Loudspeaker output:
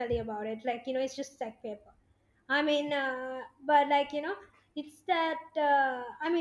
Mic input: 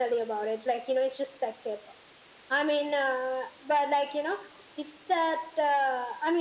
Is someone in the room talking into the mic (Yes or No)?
No